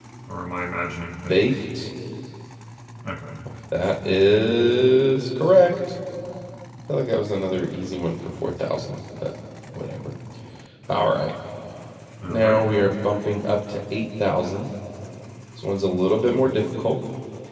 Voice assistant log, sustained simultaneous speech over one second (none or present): none